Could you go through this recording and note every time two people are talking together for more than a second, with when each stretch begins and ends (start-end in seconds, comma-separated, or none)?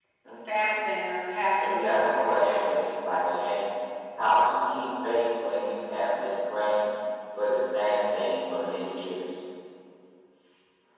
1.6-2.8